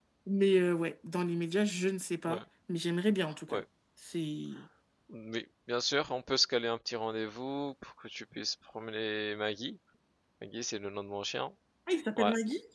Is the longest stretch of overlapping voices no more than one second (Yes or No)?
Yes